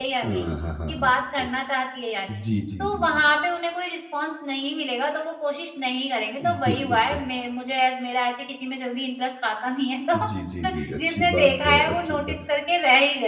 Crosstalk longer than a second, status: present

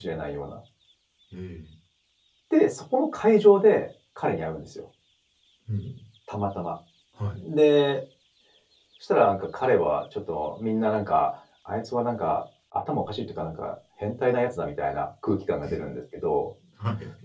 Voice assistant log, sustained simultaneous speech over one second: none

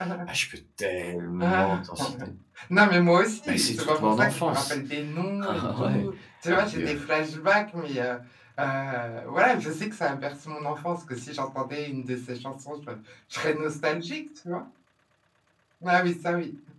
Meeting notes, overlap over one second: present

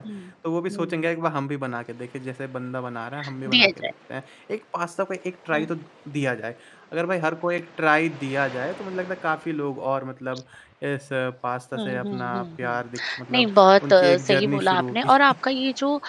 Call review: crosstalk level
present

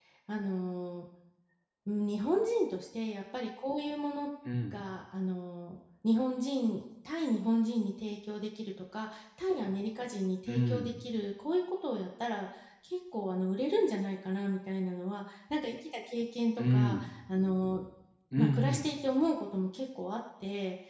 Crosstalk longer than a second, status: none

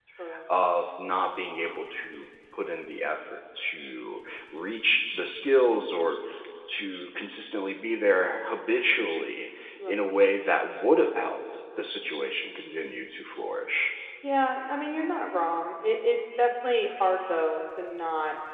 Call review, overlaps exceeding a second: none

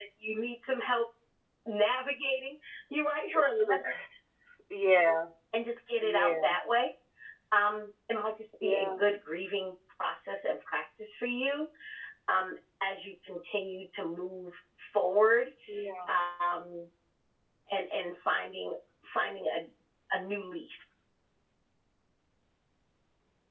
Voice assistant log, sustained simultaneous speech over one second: none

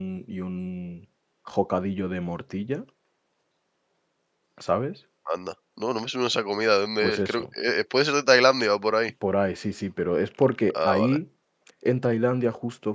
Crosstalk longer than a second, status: none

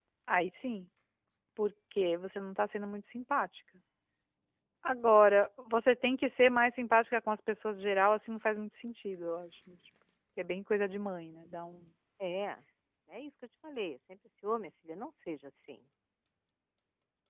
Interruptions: none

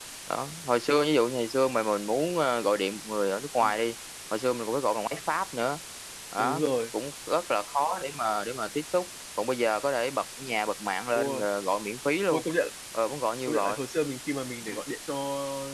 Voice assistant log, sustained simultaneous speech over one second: none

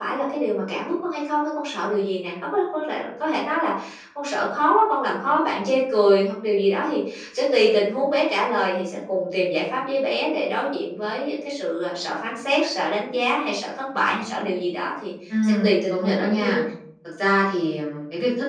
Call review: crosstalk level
present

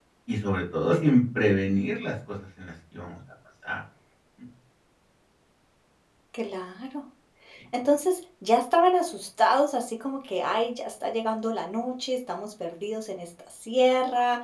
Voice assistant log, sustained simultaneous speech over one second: none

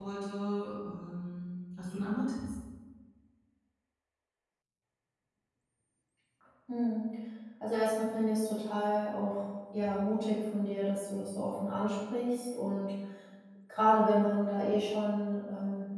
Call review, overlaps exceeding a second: none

